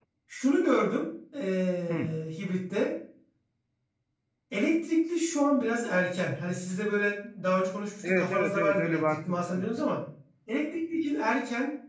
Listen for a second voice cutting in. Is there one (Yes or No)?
Yes